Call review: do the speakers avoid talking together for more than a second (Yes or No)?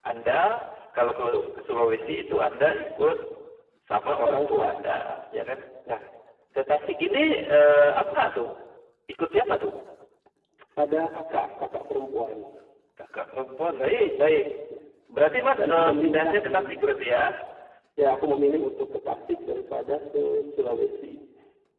No